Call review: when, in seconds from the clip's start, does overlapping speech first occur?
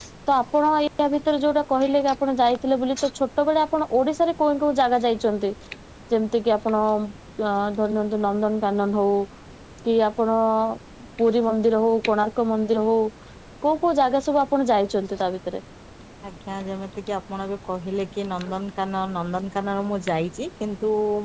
none

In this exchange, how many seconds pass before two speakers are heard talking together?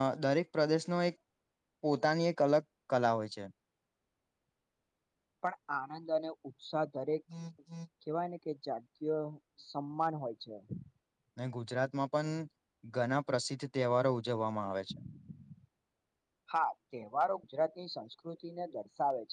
none

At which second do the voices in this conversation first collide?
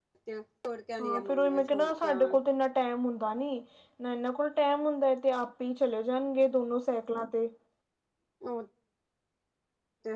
1 s

